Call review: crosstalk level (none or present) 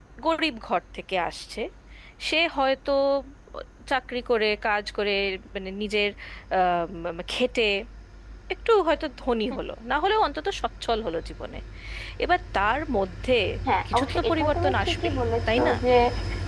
present